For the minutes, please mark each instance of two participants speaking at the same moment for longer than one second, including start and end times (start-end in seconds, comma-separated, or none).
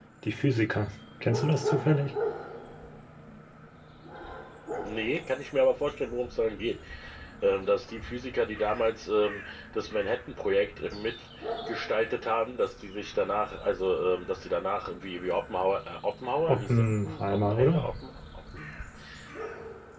16.5-17.8